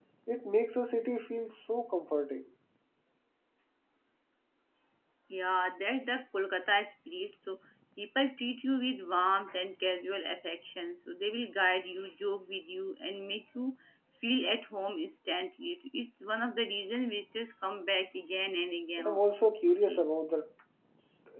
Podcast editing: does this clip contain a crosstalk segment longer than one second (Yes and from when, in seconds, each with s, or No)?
No